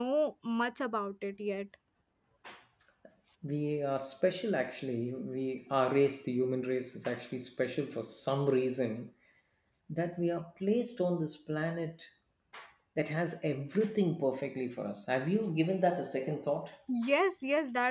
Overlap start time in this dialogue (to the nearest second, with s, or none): none